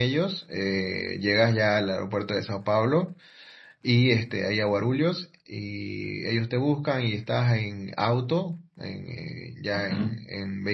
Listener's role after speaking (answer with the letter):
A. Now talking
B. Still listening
B